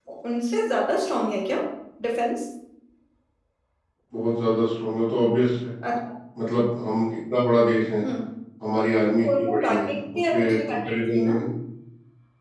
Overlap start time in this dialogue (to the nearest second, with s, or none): 9 s